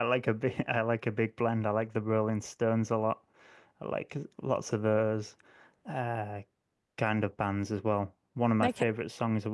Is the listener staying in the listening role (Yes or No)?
Yes